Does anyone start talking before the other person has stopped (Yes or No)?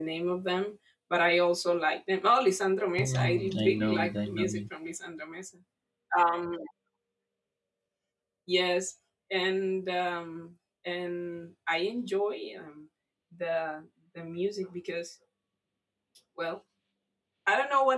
Yes